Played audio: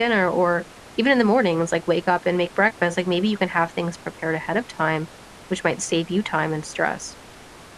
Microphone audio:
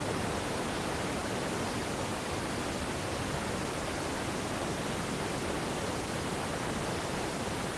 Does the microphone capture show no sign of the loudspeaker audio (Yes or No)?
Yes